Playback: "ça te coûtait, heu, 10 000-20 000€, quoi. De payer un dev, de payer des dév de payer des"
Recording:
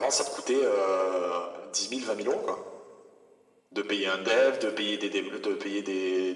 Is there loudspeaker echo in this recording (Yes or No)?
Yes